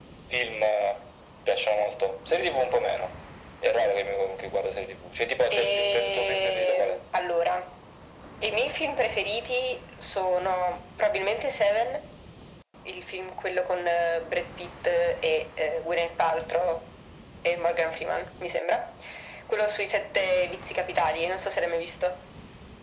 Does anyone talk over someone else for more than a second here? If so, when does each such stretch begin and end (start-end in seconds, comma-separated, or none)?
5.5-7.0